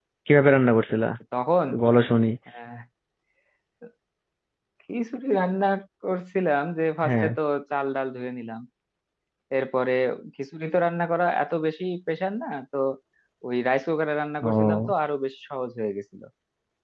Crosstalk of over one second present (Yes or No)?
No